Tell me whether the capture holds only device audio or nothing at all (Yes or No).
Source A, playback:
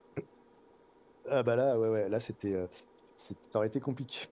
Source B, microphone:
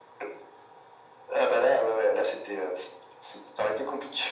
Yes